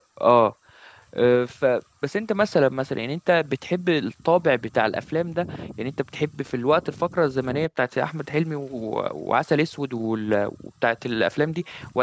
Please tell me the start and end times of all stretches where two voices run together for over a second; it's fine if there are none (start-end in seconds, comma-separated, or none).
none